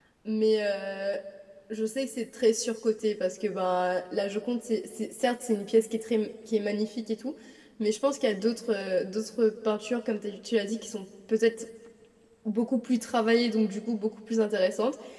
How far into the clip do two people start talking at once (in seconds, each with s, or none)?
none